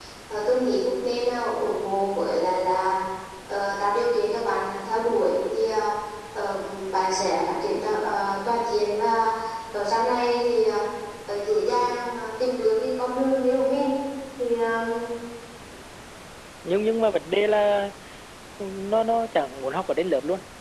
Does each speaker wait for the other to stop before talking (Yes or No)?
Yes